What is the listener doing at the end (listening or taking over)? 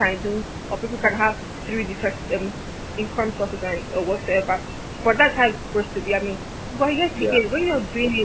listening